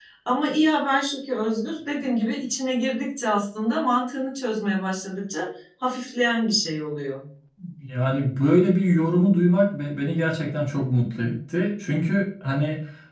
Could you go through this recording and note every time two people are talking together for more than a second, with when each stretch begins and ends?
none

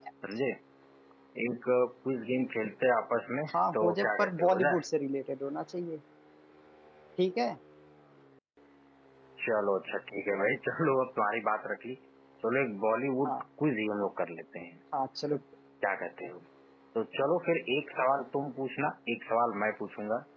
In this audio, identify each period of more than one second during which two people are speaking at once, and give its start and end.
3.5-4.8

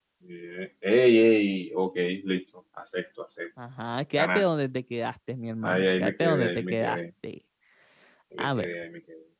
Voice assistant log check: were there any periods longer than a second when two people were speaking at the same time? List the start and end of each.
5.6-7.0

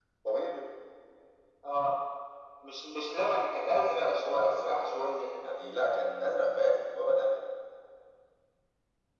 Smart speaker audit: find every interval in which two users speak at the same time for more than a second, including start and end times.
3.9-5.4

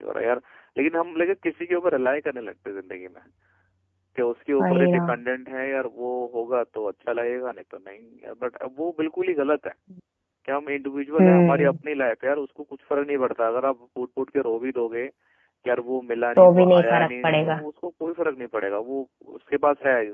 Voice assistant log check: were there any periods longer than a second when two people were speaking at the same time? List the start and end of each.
16.4-17.6

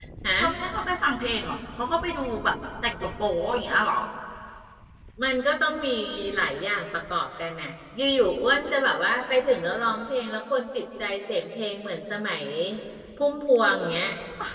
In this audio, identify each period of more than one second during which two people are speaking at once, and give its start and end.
none

